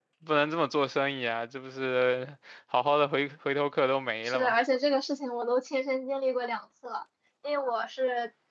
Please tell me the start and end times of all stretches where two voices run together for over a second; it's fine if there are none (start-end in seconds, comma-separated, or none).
none